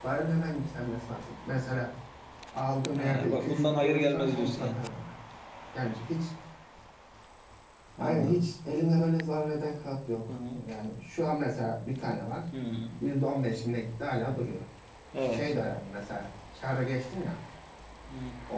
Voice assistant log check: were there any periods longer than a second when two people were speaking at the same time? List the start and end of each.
3.0-4.8

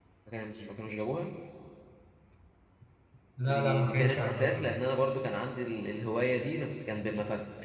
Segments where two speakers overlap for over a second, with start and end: 3.5-4.8

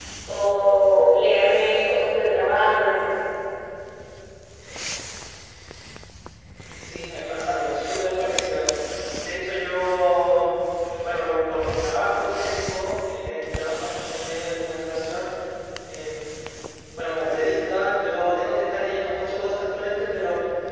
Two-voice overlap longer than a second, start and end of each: none

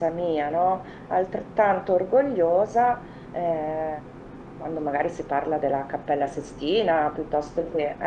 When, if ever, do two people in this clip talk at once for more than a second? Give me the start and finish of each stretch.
none

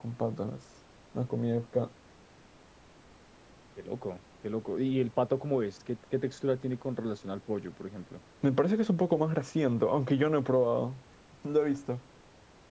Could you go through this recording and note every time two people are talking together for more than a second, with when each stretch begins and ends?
none

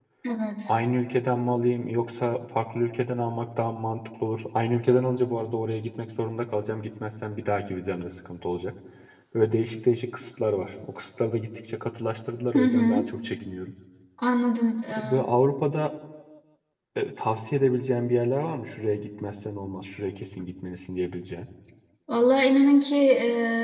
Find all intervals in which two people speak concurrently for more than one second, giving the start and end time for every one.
none

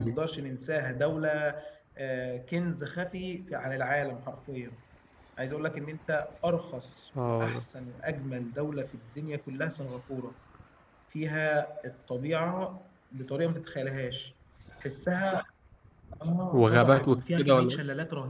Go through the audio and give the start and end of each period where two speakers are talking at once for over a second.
16.5-17.8

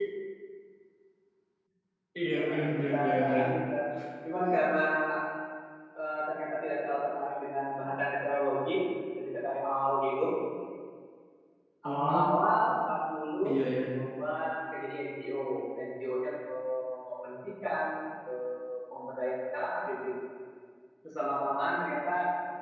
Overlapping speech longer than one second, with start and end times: 2.2-3.5

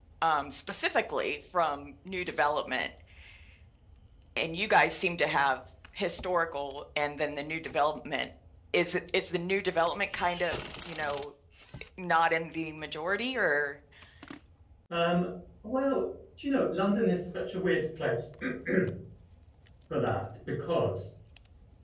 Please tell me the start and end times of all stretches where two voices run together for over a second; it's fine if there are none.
none

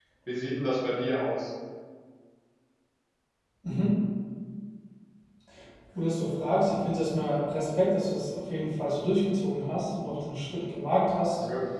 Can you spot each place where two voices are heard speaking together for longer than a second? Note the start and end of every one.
none

